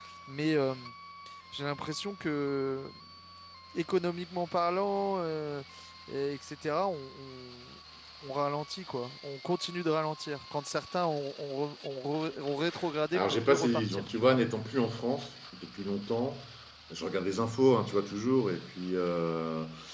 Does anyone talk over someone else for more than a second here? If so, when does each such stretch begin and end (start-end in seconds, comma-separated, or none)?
13.1-14.4